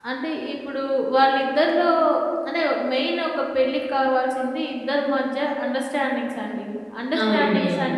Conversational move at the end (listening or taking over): listening